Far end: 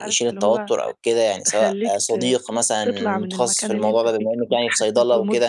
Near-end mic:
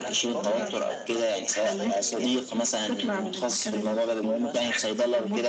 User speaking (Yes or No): Yes